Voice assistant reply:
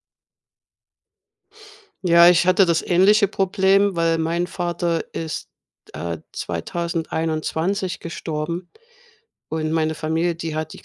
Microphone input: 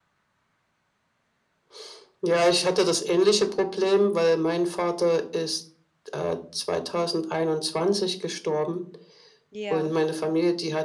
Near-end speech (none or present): present